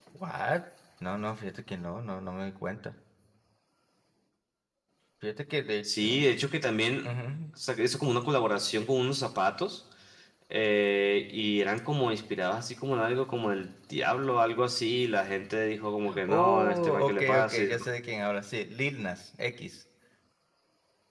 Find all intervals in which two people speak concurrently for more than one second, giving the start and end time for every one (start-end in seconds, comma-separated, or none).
16.2-17.8